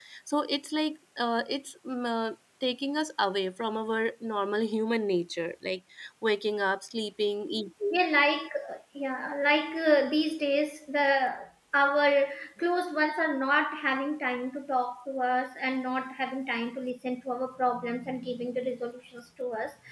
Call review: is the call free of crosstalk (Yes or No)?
Yes